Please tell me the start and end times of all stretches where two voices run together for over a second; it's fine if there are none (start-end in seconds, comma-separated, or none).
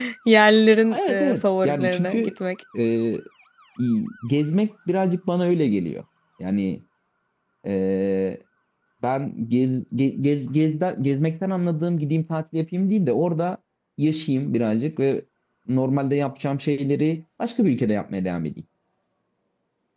0.9-2.3